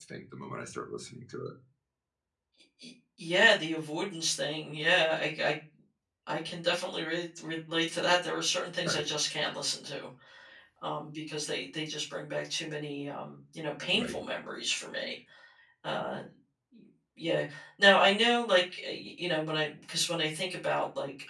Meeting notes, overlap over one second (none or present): none